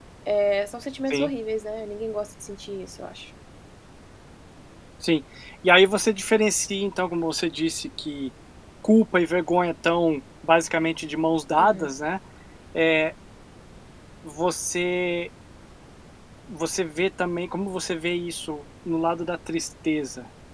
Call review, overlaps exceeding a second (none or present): none